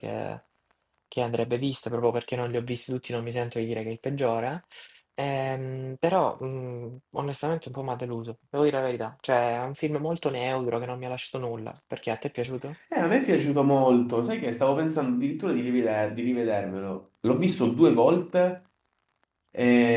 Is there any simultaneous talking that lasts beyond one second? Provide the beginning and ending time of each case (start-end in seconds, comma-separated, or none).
none